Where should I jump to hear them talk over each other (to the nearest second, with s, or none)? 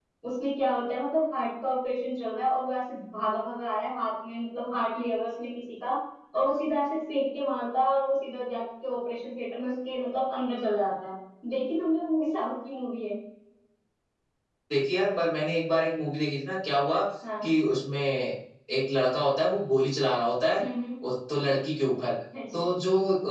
none